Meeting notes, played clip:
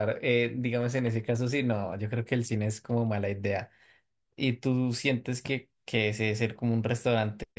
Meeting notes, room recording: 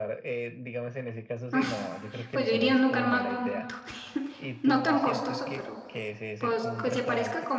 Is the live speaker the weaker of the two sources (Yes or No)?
No